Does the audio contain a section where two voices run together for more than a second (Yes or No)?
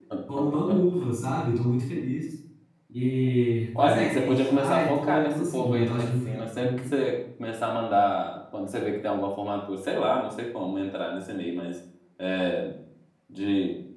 Yes